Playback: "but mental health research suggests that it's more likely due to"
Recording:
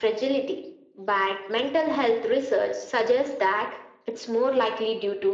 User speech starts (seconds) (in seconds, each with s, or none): none